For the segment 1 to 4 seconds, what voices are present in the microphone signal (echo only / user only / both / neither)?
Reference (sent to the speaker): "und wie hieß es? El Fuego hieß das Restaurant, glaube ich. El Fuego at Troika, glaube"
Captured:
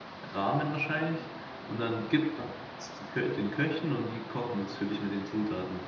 user only